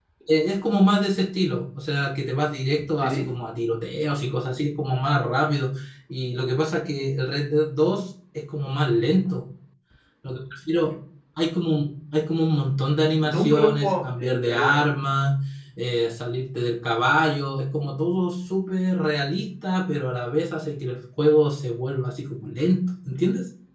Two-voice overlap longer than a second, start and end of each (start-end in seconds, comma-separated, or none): 13.2-14.8